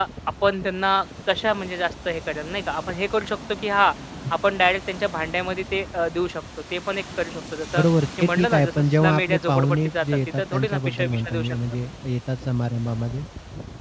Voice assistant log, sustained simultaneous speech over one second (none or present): present